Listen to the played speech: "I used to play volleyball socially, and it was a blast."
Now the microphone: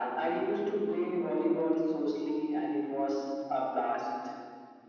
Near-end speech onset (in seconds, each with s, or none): none